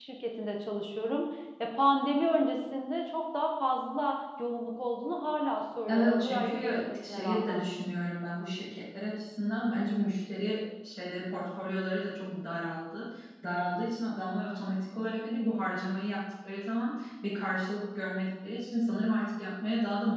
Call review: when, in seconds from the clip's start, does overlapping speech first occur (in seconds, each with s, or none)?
5.9 s